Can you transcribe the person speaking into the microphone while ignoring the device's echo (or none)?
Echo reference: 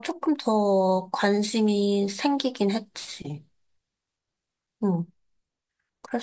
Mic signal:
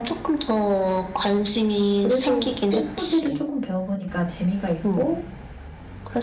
그래도 꽃꽂이를 조금 배워보니까 재미가 있고,